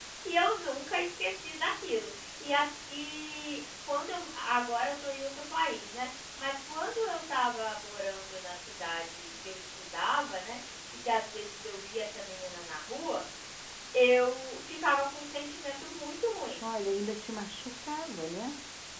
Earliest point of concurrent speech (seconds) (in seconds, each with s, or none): none